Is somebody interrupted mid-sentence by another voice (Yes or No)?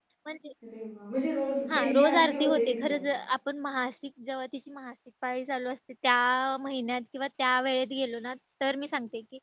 Yes